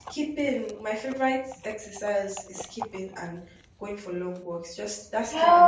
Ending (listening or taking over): taking over